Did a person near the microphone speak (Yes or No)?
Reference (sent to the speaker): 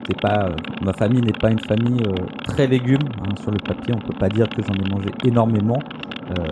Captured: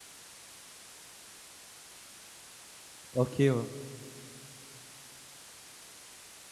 Yes